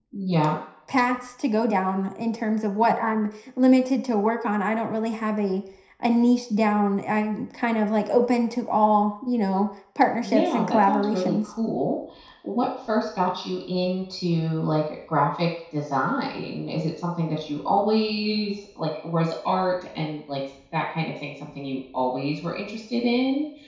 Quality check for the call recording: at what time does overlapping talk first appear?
10.2 s

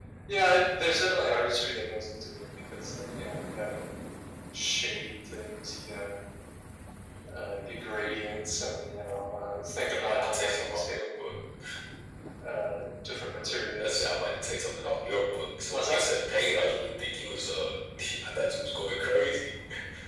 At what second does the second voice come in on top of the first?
9.8 s

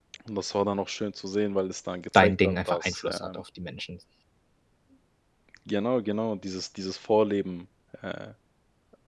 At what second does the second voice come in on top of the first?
2.1 s

